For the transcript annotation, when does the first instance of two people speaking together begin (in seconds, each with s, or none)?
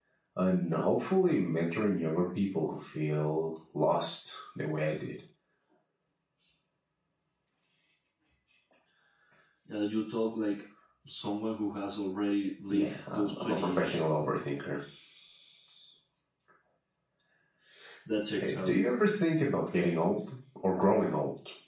12.7 s